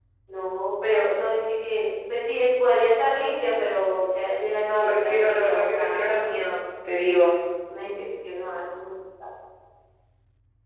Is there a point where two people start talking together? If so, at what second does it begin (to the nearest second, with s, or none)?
5 s